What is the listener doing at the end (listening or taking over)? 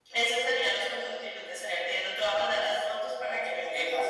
taking over